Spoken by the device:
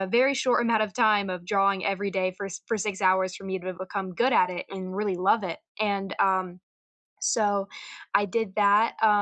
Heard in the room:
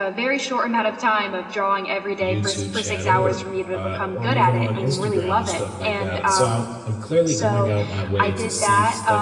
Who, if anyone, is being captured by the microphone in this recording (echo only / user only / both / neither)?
both